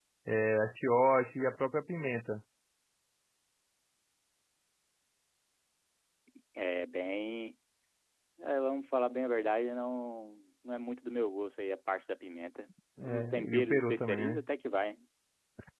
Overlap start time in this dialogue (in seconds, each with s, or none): 13.0 s